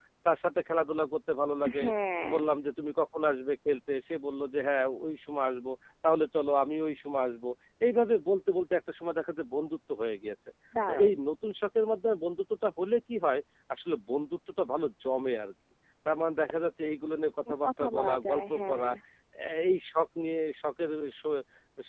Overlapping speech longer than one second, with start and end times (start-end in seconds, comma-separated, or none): 17.6-18.9